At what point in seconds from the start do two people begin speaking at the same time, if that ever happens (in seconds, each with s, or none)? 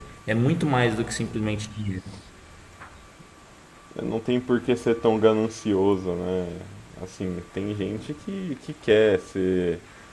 none